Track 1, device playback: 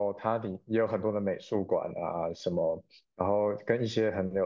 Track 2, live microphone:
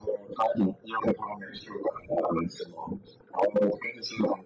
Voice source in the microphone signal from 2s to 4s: echo only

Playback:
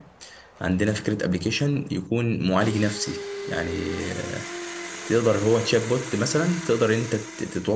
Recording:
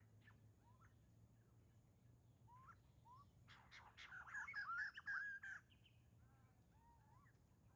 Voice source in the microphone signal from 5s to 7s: neither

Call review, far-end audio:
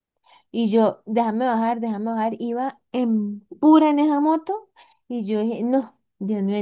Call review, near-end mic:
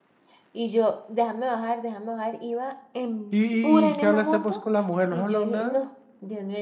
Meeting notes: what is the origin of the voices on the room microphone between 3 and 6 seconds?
both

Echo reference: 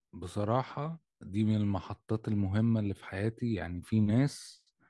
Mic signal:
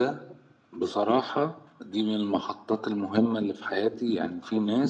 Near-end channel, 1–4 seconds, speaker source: echo only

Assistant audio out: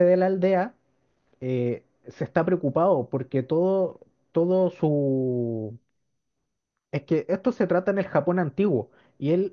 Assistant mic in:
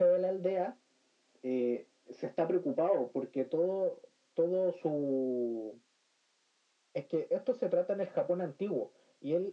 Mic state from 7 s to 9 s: echo only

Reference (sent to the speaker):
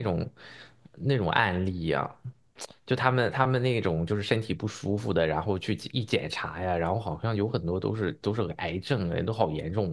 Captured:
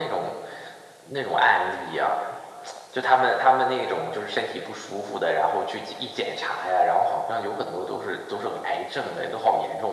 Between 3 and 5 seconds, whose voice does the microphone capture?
echo only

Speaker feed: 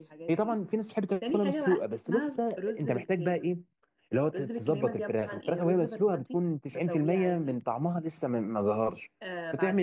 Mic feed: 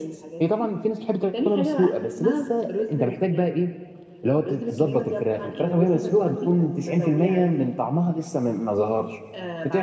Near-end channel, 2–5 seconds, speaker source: echo only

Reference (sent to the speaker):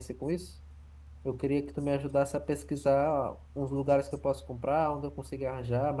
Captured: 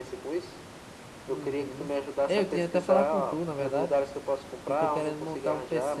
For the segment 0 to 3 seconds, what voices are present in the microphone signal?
both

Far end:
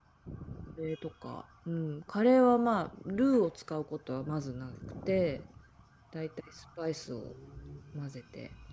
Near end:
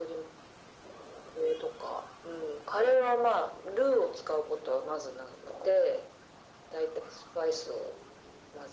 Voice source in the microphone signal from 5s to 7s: echo only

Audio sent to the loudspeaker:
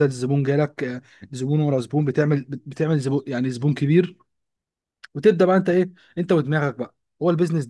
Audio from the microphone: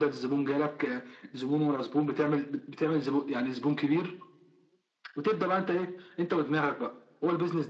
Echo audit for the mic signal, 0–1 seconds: echo only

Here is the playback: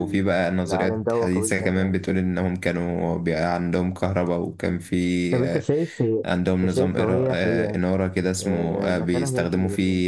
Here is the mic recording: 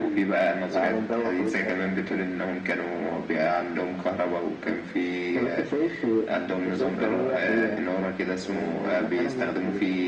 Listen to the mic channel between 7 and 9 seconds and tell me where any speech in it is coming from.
echo only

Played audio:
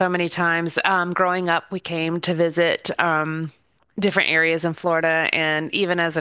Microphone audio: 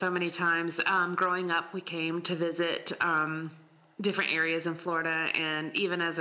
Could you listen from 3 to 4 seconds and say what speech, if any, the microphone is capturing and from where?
echo only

